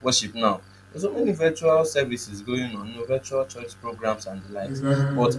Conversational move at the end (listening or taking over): listening